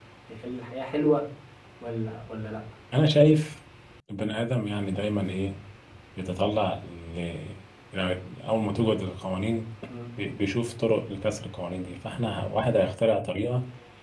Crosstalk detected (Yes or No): No